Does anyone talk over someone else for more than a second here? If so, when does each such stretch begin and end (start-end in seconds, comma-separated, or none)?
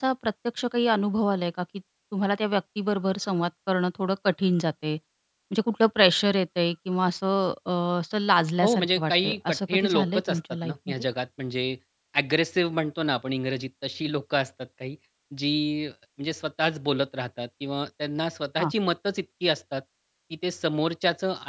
8.6-11.0